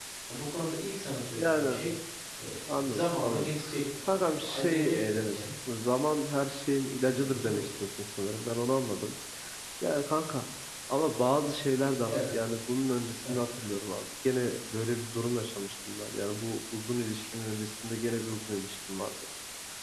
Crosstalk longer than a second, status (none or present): present